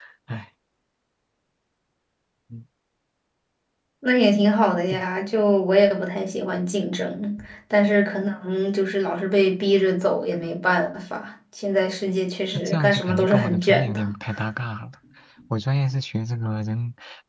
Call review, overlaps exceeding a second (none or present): present